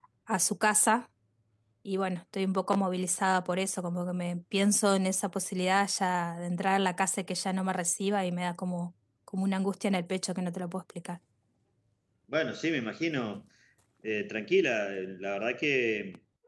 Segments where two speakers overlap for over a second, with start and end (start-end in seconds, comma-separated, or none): none